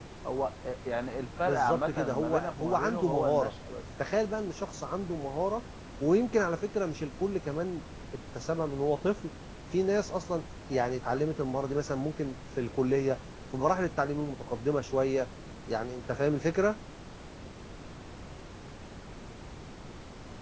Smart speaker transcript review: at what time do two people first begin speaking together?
1 s

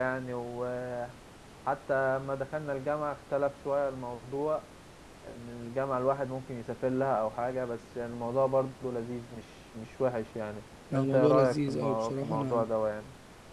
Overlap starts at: 11 s

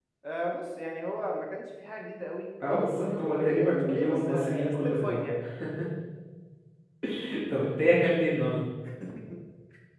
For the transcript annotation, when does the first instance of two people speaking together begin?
3 s

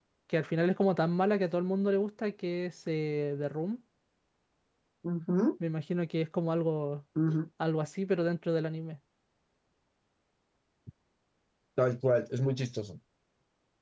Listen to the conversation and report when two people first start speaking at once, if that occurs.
none

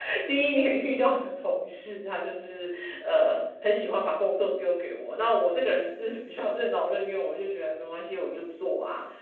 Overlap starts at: none

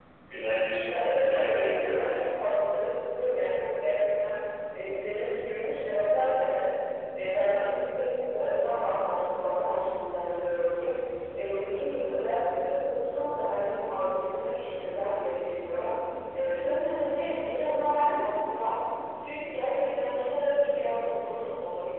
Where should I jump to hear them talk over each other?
1 s

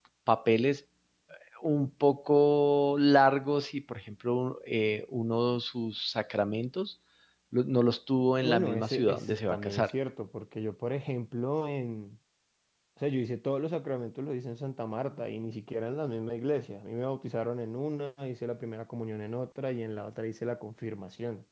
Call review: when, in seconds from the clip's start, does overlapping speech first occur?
8 s

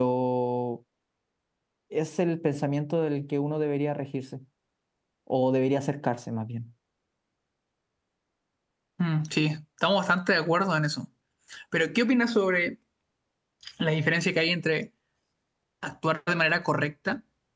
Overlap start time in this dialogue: none

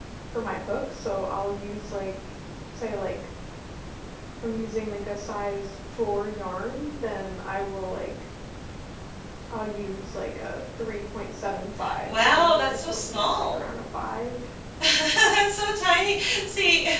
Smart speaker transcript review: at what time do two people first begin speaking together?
12 s

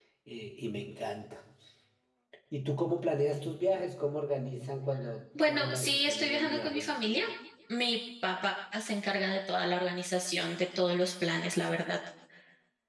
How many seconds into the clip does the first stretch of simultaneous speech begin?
5 s

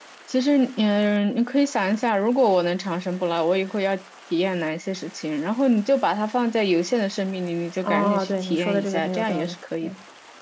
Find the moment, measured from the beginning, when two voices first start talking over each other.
8 s

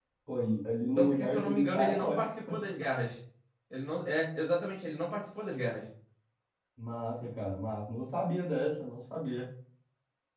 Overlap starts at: 1 s

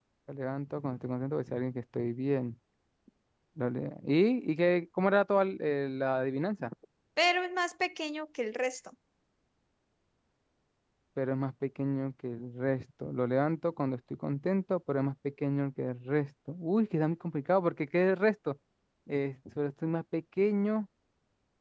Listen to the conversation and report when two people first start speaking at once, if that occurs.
none

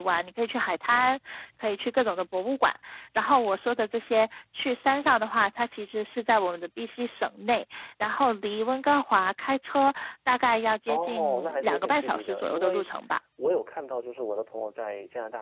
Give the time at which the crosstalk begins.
11 s

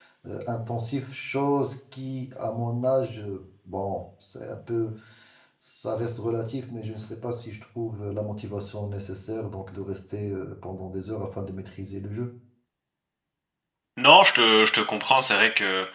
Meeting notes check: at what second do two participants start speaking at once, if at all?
none

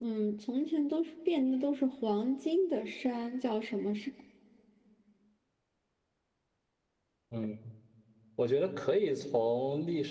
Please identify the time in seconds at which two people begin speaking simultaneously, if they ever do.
none

